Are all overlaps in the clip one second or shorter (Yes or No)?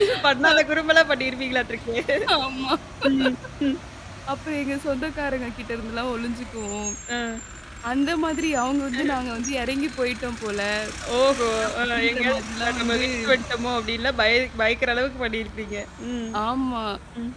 No